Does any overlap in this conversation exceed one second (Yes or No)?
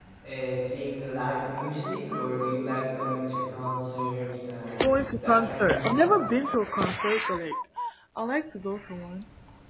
Yes